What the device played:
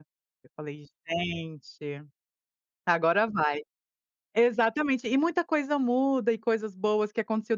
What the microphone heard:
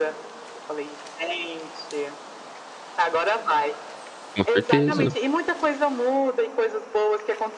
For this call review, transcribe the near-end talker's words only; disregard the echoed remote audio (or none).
Com certeza.